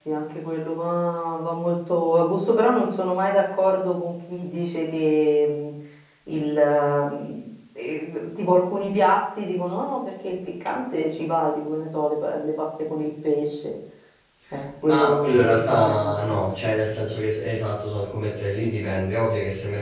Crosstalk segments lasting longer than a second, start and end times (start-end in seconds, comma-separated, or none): 14.8-16.1